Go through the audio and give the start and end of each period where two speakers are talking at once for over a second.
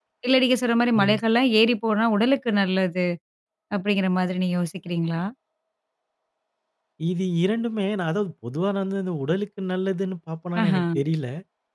none

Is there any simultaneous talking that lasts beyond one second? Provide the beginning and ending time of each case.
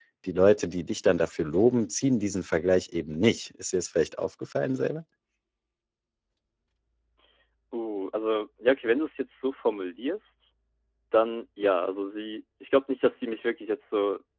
none

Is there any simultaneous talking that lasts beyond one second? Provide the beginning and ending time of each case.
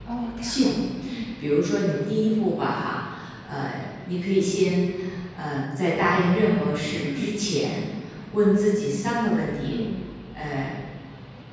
none

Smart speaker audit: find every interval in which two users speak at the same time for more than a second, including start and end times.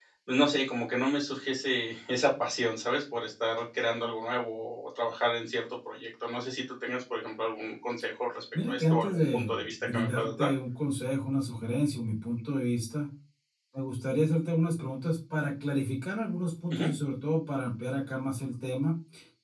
8.7-10.5

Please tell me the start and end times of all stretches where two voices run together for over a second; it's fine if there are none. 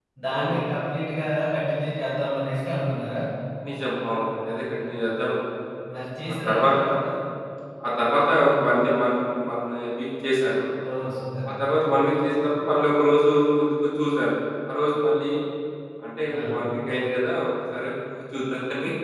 none

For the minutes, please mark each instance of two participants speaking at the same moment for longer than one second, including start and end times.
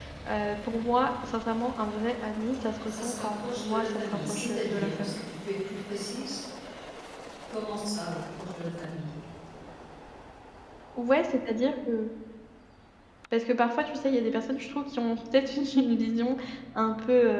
2.8-5.2

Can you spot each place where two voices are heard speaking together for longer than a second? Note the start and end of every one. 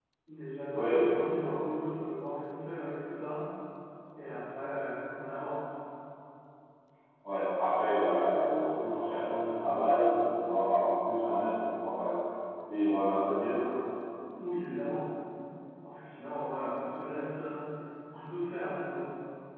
0.7-1.9

